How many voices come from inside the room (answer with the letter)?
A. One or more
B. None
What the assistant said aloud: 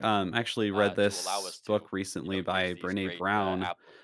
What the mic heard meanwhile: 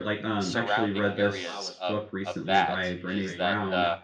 A